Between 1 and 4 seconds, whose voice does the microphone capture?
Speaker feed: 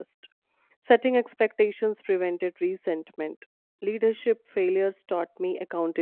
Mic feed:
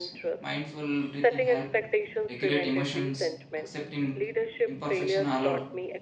both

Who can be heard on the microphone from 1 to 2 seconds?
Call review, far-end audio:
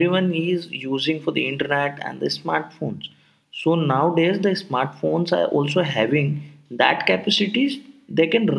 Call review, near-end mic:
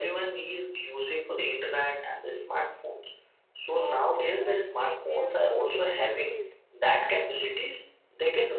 echo only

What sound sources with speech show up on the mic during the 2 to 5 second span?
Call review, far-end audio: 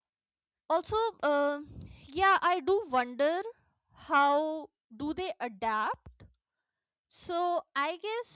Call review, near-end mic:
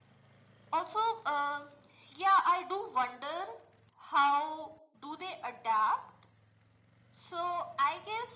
echo only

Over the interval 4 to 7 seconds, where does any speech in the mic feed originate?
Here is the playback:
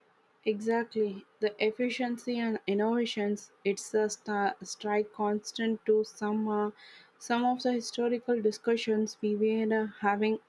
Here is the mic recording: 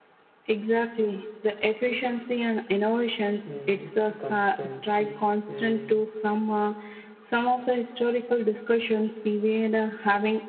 both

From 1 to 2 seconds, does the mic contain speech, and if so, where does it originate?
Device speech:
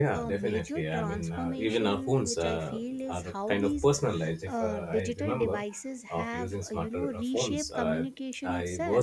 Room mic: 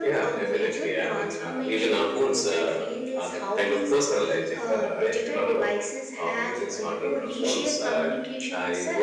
echo only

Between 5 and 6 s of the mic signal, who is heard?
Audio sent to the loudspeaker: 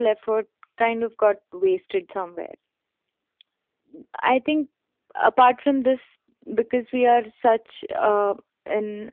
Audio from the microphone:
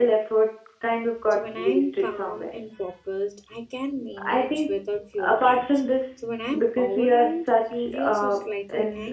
both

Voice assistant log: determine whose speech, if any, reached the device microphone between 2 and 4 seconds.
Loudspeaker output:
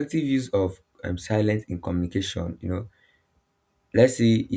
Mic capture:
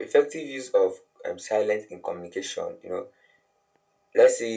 echo only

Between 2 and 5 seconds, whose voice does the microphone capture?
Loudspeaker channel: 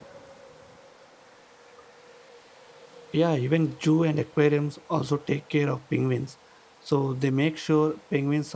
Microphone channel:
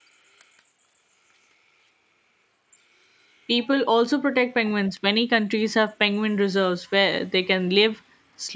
user only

